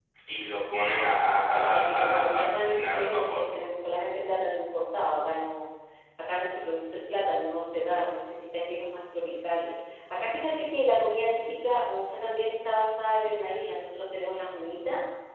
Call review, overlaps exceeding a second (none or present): present